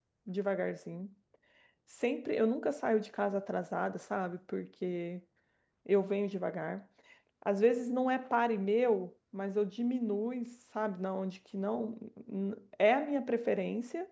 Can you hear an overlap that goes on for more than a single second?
No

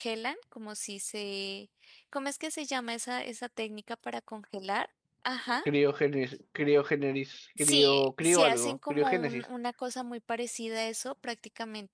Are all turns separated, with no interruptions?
No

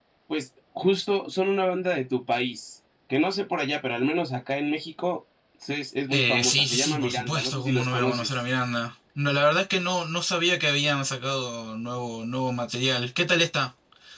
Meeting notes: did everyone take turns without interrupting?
No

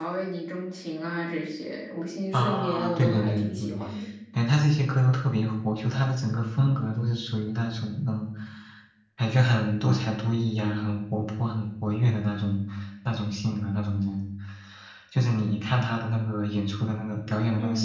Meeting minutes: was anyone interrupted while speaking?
Yes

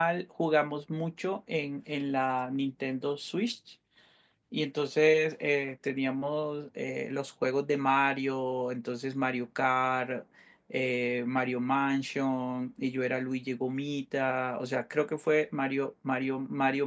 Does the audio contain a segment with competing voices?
No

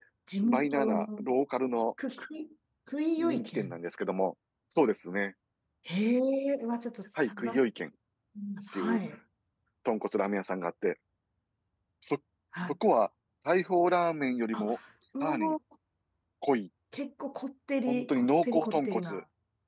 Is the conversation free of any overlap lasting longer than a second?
No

